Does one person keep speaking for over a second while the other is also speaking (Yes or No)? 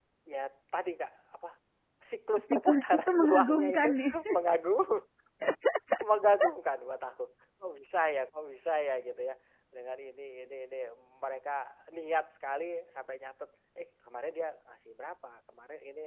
Yes